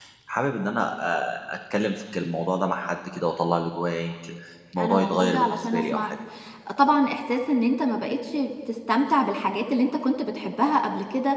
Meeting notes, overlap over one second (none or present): present